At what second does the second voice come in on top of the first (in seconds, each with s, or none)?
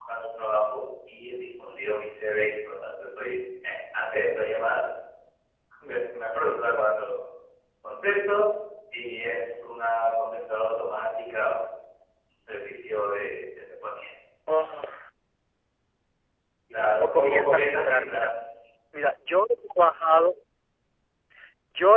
17.0 s